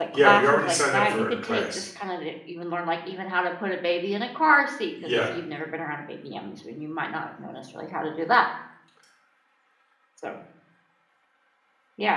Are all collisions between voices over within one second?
No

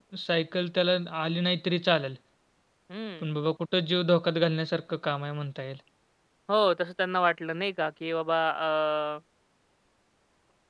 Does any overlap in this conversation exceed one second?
No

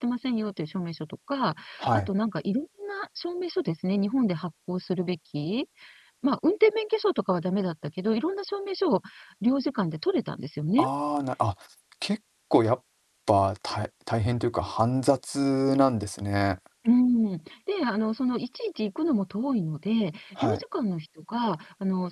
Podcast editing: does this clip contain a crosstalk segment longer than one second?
No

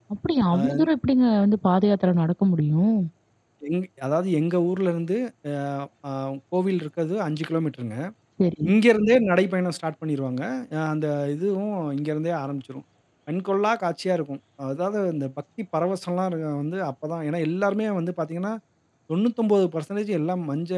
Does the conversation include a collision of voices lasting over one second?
No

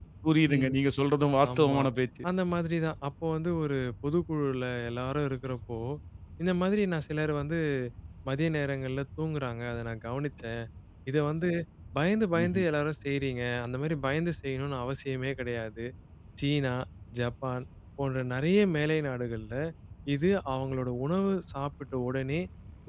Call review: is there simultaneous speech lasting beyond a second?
No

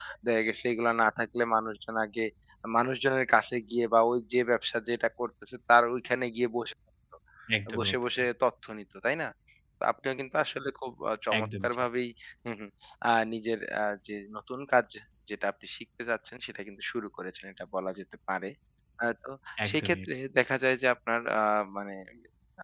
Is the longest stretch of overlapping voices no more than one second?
Yes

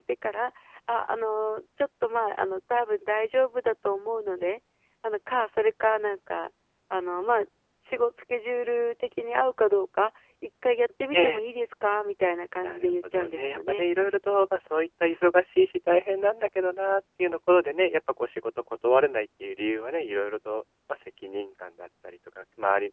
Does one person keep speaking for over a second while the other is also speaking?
Yes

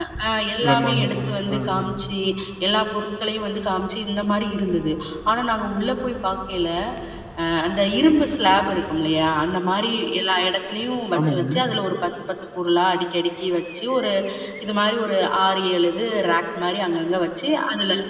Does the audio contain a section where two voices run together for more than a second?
Yes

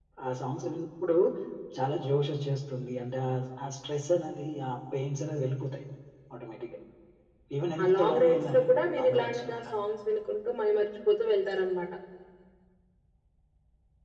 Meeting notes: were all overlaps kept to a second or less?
No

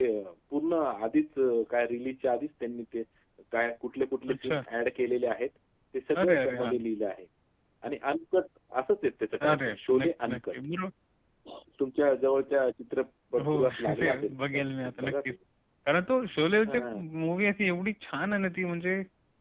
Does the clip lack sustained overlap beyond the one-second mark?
No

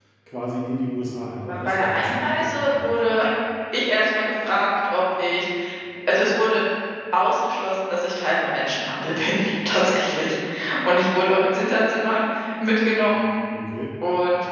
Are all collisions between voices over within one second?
No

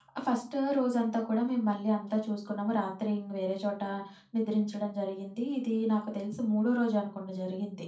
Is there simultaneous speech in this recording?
No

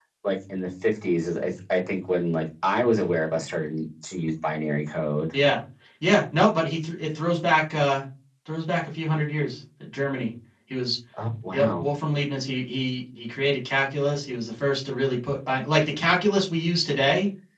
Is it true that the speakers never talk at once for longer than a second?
Yes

